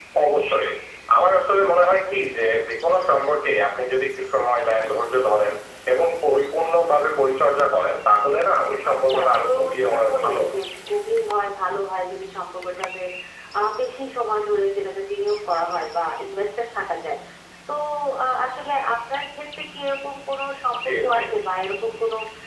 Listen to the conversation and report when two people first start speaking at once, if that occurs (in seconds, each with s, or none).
8.9 s